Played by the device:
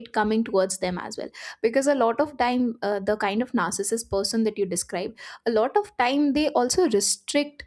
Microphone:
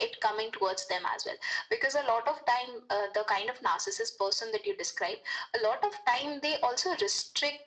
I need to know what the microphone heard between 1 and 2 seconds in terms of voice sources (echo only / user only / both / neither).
echo only